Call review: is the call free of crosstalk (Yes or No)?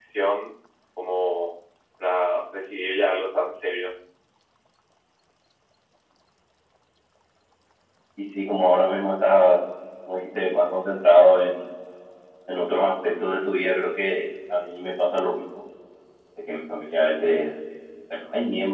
Yes